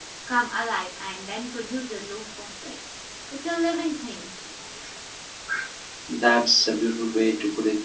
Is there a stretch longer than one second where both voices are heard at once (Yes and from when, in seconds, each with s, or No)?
No